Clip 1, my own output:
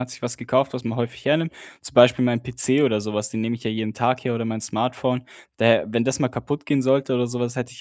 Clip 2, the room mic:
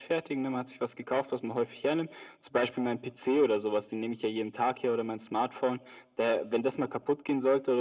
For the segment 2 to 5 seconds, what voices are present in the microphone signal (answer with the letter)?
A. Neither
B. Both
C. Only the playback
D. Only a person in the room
C